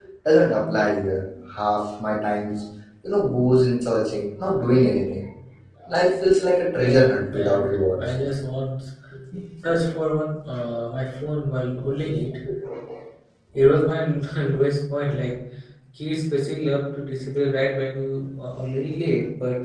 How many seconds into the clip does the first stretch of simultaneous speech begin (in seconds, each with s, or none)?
6.8 s